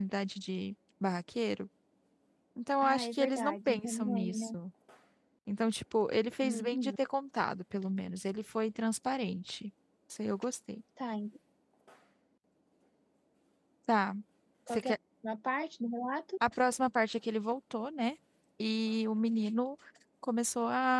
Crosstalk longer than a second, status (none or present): present